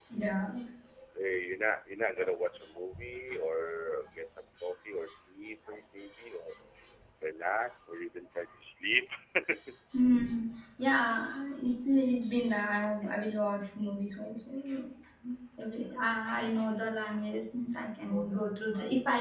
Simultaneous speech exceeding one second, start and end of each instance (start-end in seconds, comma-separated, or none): none